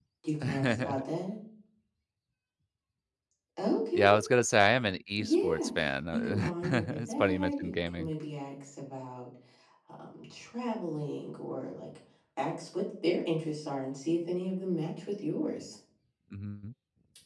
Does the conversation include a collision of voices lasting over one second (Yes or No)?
Yes